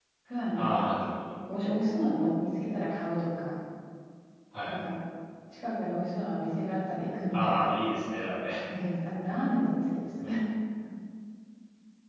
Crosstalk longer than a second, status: none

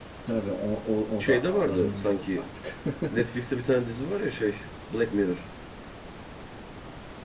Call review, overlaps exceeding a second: present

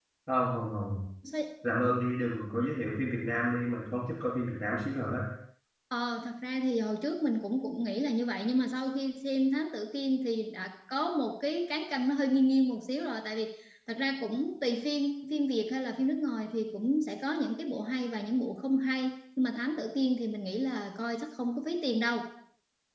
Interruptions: none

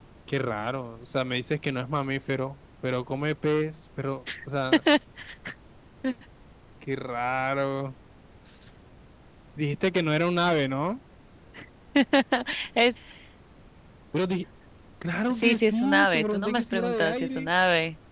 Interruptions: present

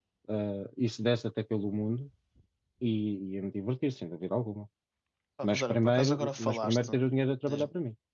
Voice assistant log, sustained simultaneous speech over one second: present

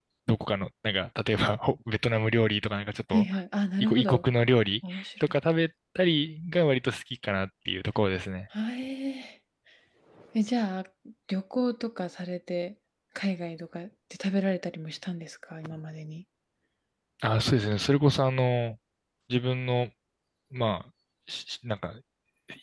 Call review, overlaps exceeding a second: none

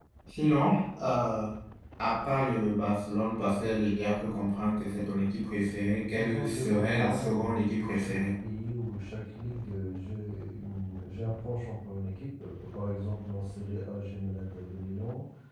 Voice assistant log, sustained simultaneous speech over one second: present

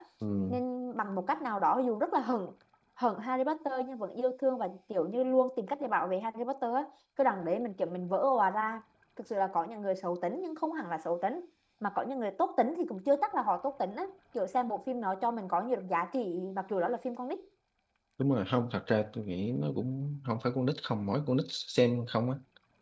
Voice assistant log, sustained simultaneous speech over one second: none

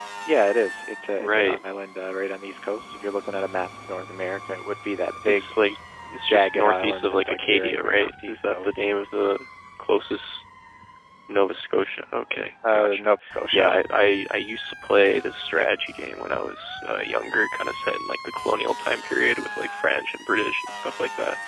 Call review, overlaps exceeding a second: present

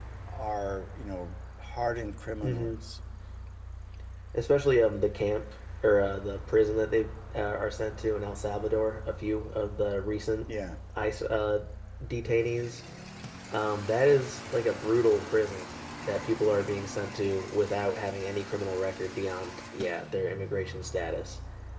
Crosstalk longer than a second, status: none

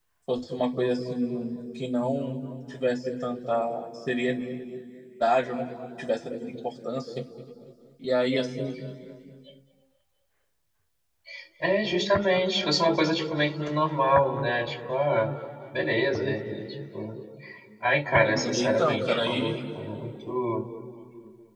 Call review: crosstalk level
present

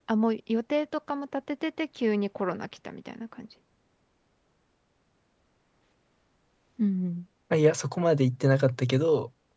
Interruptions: none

